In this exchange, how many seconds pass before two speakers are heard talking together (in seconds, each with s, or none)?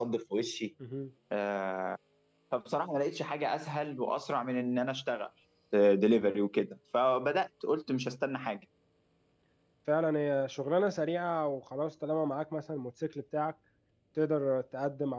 none